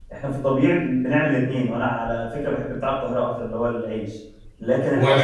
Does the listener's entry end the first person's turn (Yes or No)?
No